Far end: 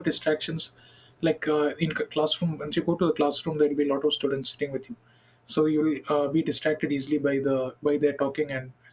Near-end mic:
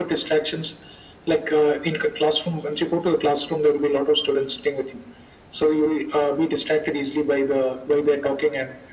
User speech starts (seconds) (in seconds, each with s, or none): none